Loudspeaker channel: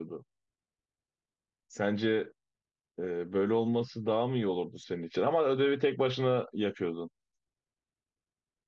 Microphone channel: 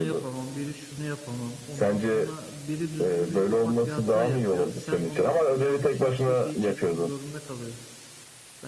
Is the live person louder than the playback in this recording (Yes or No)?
No